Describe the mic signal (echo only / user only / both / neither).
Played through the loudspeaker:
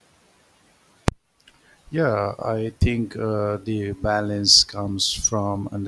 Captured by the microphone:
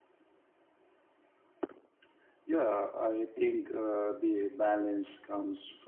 echo only